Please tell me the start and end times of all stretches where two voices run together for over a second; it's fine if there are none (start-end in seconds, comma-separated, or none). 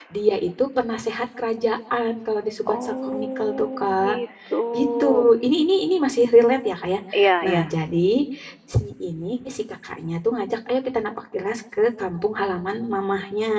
2.7-4.1